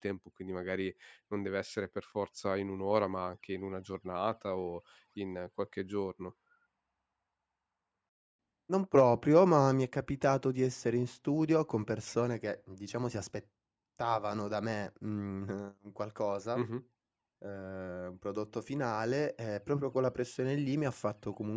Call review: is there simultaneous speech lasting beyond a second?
No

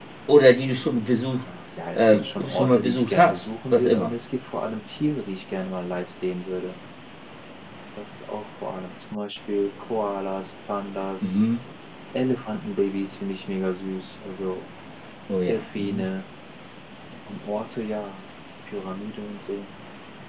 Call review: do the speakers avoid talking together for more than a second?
No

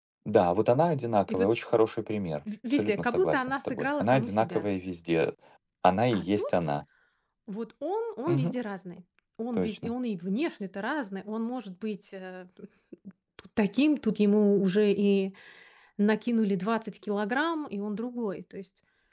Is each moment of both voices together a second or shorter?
No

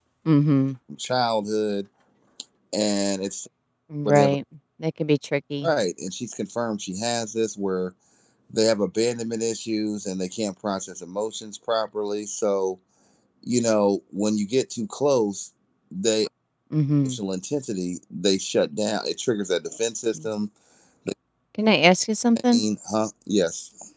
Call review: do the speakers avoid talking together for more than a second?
Yes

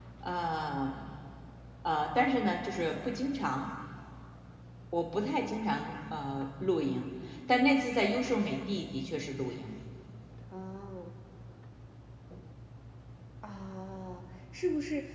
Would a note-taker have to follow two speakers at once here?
No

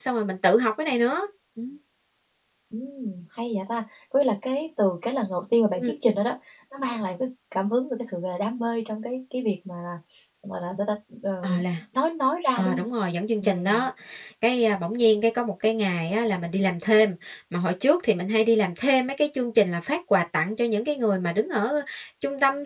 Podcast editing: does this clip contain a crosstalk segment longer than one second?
No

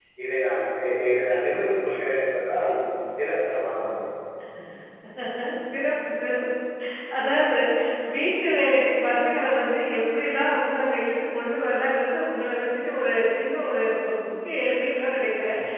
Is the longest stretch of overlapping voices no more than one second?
Yes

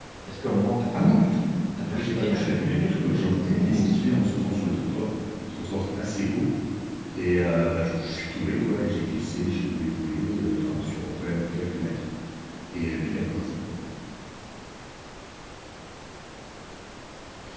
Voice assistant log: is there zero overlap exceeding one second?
No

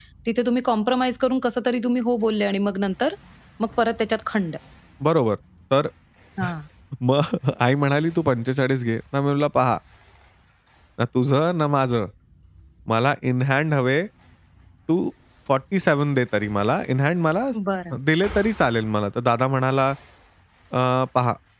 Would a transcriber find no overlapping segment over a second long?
Yes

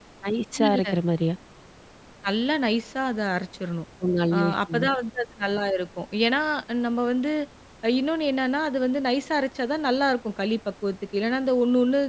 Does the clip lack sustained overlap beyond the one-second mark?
Yes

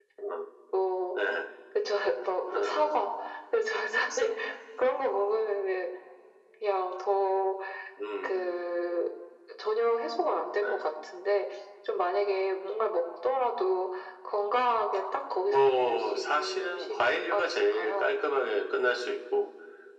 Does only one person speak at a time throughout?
No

